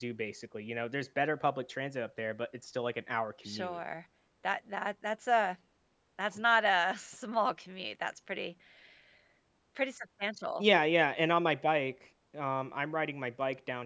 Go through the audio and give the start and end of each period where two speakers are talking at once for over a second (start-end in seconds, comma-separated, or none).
none